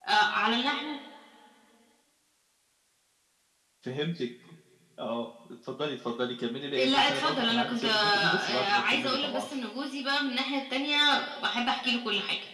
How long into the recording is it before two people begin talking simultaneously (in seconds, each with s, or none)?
6.8 s